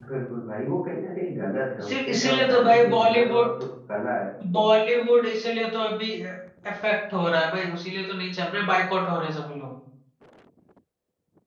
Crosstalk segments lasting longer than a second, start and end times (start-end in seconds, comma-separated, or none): 1.8-3.5